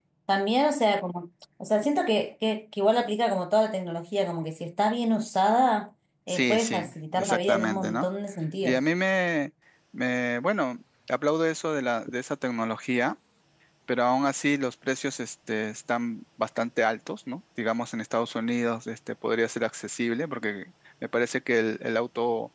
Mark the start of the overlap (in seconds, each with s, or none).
6.3 s